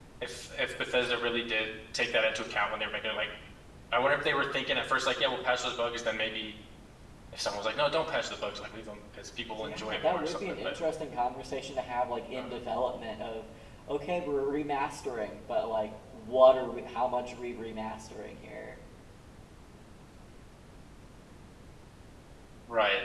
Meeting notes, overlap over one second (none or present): present